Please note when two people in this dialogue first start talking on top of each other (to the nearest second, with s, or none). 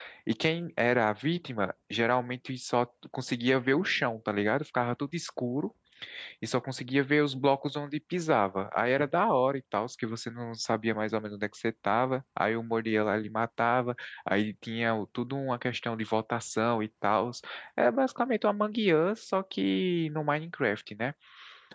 none